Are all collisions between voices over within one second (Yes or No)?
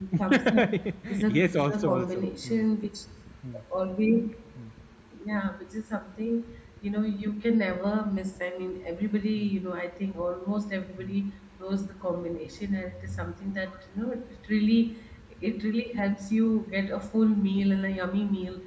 No